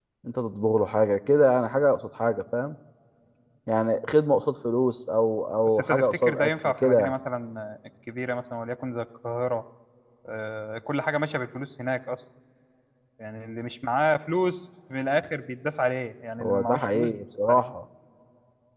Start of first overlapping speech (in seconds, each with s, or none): 5.7 s